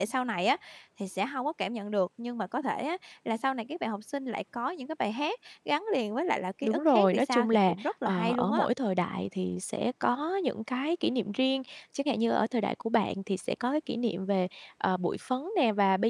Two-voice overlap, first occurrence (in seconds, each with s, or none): 6.6 s